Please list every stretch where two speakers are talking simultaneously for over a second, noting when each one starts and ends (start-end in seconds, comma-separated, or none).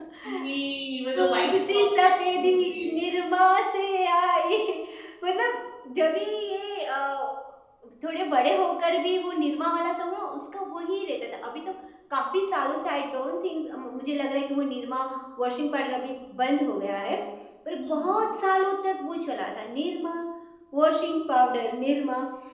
1.2-3.0